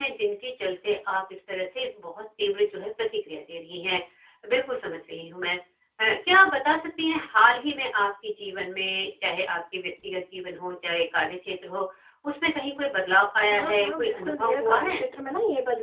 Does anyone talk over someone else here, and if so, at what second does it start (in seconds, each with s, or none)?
13.5 s